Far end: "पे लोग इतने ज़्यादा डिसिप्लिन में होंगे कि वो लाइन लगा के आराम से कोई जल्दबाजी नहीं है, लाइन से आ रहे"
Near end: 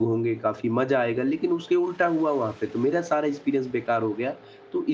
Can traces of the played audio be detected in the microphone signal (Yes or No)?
No